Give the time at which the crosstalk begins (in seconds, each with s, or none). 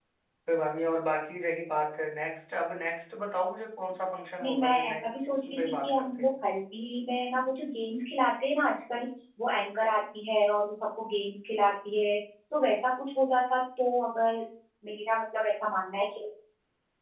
4.4 s